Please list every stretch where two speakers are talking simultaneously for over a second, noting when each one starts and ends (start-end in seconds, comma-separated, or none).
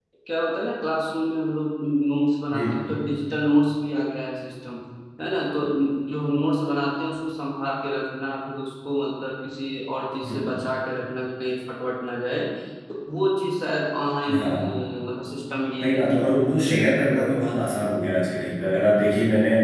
15.8-17.8